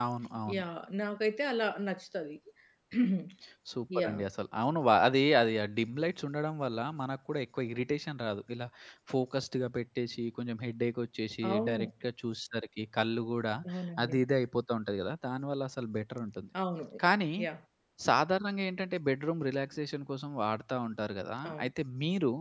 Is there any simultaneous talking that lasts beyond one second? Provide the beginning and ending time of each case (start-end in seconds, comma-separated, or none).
none